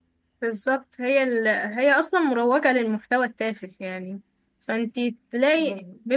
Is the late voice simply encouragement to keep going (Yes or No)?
Yes